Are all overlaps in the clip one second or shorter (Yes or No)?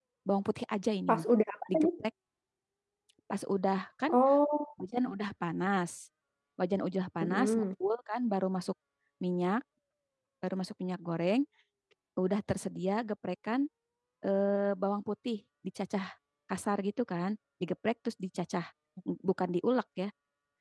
Yes